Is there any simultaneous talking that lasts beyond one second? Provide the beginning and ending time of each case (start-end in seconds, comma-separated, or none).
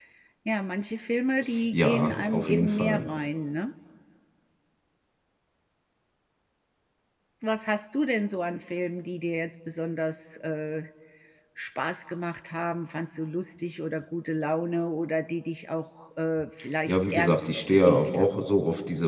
1.7-3.0, 16.9-18.4